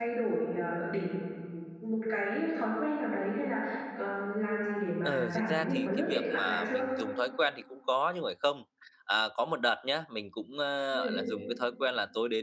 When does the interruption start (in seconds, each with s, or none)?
5.0 s